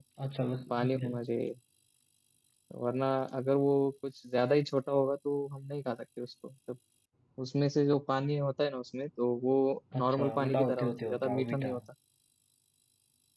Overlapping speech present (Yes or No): Yes